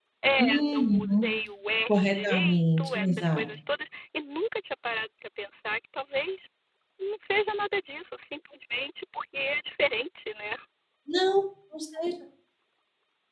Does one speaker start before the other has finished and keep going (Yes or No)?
Yes